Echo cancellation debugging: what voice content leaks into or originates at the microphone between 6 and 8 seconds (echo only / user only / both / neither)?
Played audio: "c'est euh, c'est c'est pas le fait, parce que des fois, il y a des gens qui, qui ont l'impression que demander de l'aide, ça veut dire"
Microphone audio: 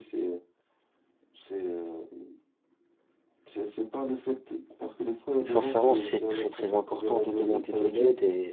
both